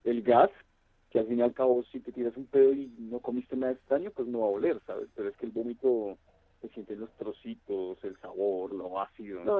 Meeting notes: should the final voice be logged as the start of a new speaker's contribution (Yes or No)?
Yes